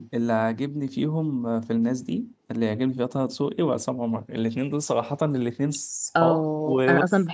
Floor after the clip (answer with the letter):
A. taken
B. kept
A